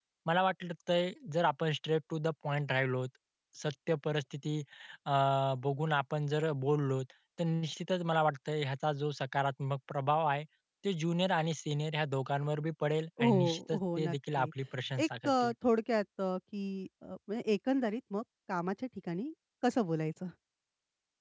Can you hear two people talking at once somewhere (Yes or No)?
Yes